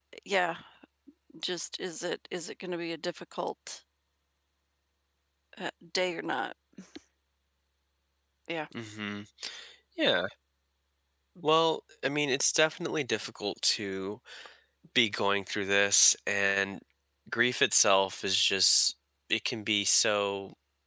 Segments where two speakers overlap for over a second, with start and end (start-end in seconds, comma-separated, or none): none